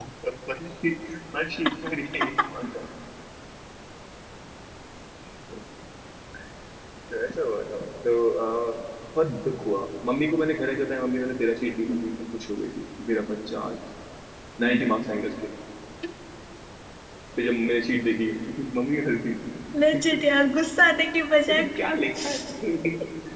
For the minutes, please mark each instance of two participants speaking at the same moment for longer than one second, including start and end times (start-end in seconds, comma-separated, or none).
none